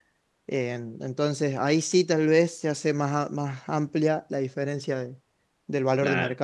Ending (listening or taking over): taking over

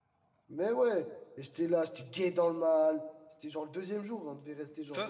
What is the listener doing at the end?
taking over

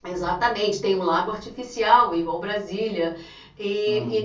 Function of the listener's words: listening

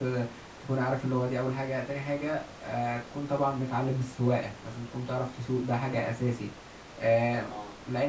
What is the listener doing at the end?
listening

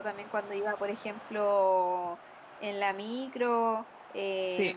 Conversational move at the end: listening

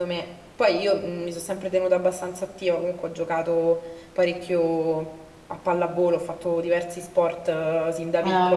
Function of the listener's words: listening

